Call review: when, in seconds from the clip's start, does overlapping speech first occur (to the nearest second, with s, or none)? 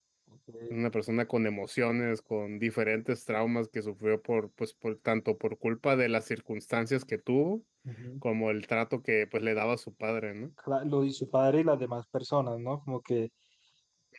none